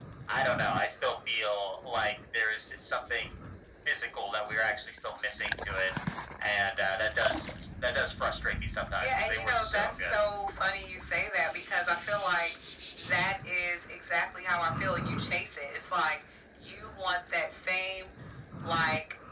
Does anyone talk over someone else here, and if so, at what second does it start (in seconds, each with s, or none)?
8.9 s